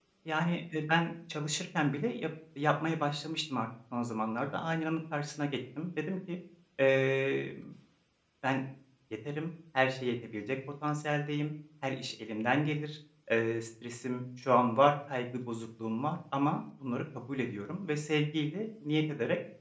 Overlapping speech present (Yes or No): No